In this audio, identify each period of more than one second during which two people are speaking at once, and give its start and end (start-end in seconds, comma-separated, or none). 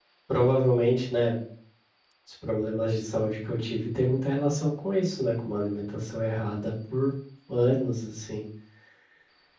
none